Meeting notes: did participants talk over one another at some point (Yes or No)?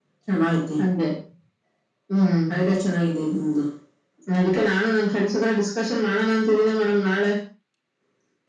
No